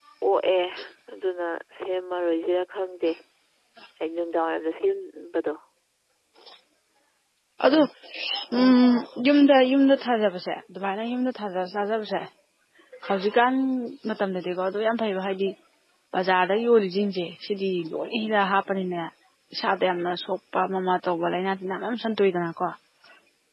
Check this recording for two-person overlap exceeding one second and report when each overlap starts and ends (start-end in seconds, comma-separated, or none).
none